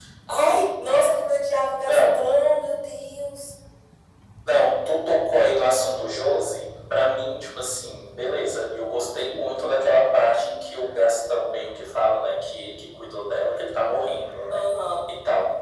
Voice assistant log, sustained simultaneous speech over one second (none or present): none